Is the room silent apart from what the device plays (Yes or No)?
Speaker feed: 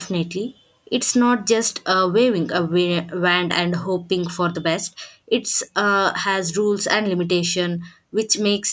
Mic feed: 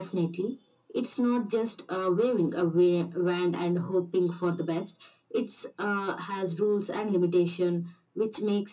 Yes